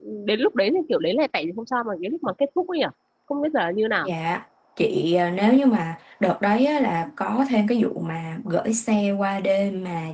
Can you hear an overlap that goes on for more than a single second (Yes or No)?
No